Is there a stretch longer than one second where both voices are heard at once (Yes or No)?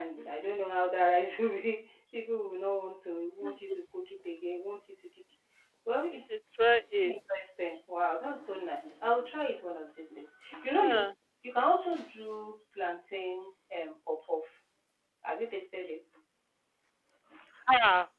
No